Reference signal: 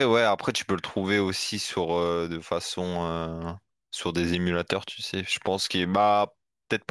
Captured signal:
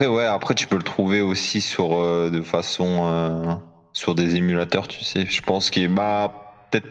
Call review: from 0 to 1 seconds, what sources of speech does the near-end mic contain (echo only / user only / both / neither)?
echo only